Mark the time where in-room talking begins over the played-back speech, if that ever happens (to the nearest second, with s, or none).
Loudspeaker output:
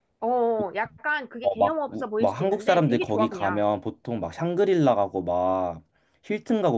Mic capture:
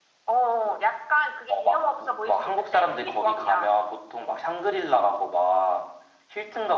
none